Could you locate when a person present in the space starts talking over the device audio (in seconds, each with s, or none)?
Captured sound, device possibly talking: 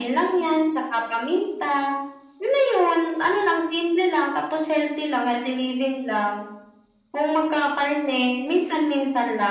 none